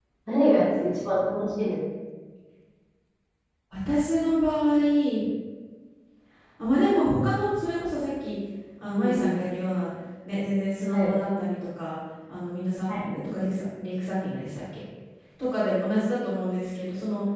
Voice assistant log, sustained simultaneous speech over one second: none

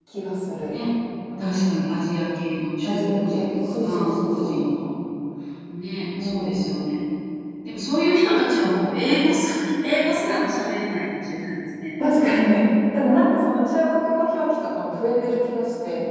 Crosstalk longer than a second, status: present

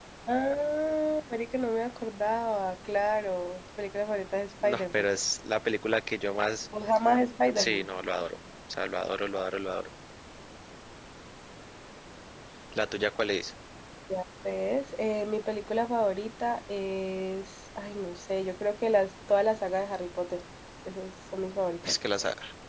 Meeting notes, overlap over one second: none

